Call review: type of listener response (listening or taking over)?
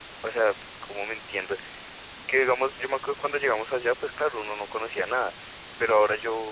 listening